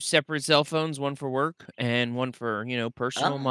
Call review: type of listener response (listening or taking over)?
taking over